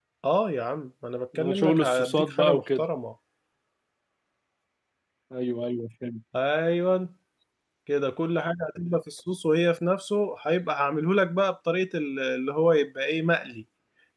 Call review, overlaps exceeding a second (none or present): present